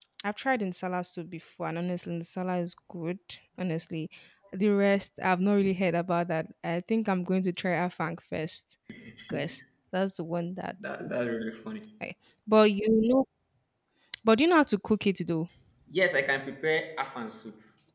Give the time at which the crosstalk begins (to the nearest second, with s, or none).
none